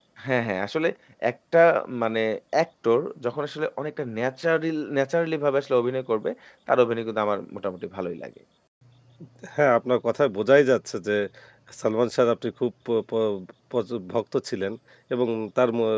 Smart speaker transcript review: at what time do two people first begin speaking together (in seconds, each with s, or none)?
none